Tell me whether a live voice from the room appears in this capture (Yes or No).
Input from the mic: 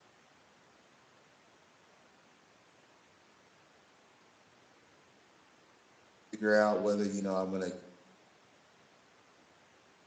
Yes